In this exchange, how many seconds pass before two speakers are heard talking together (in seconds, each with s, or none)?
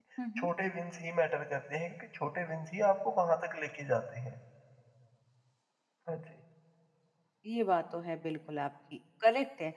none